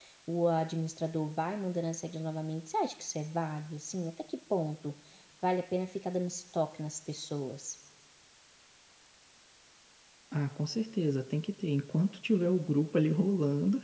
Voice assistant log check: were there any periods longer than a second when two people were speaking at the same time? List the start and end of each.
none

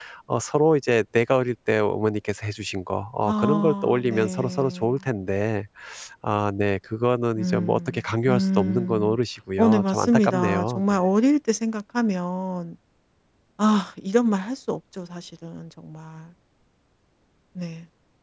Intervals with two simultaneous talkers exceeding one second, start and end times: 3.2-5.0, 7.4-9.2, 9.6-10.9

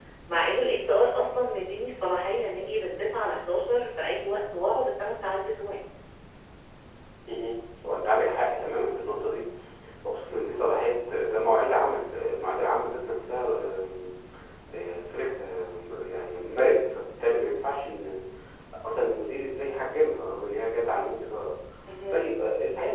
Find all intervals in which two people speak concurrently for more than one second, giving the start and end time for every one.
none

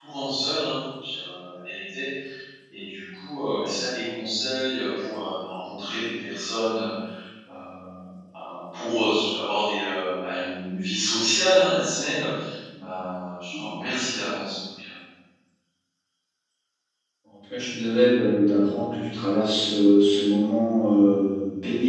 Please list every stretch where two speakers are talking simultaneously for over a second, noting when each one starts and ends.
none

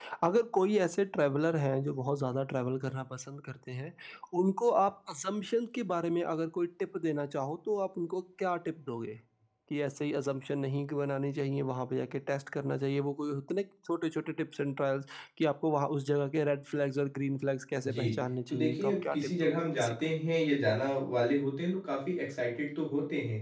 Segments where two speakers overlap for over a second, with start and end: 18.5-20.0

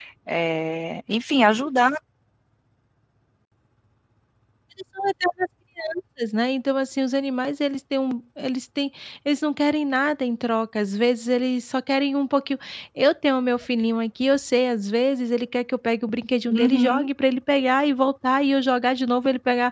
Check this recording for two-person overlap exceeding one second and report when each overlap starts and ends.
none

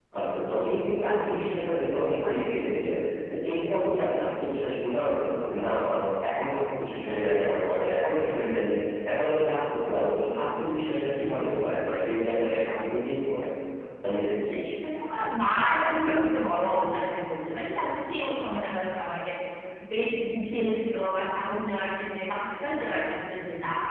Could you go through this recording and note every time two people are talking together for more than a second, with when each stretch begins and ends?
none

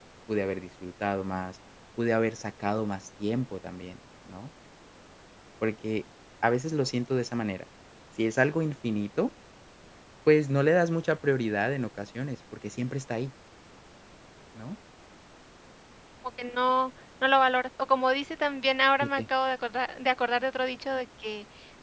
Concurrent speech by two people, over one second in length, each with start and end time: none

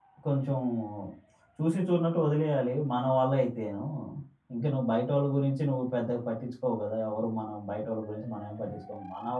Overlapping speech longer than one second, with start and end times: none

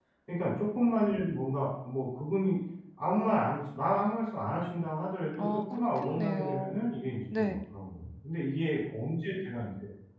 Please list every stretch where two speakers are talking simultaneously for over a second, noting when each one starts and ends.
5.4-6.8

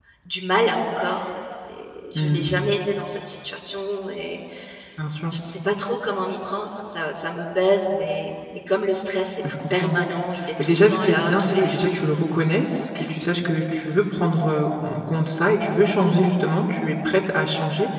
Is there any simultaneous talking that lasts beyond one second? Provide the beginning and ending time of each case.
10.6-12.0

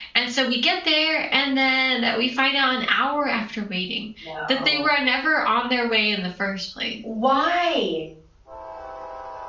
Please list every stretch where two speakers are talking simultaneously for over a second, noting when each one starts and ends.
none

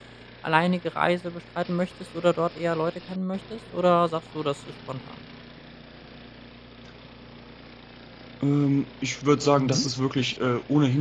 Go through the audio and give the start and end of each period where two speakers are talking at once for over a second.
none

